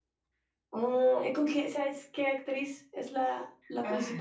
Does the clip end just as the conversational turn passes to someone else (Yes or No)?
Yes